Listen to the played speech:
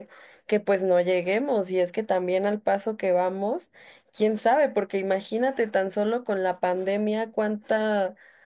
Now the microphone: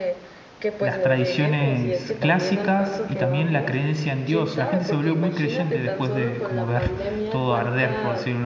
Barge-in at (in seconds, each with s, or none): 0.8 s